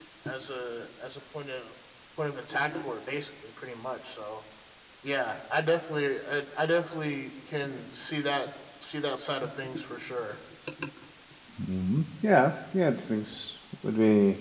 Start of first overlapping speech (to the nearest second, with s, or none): none